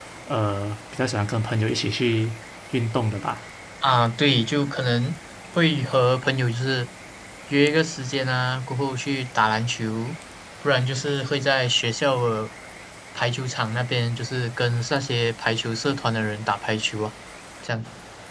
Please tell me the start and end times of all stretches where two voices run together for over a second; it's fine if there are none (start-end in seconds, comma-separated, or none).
none